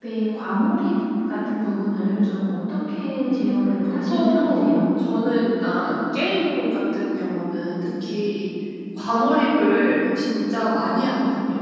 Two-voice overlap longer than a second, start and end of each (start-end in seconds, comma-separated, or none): 3.3-5.0